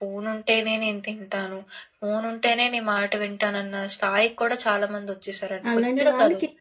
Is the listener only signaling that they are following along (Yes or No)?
No